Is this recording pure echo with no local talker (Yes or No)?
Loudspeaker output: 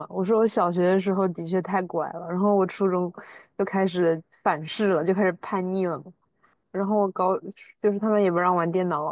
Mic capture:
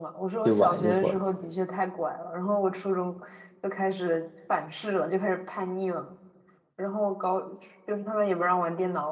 No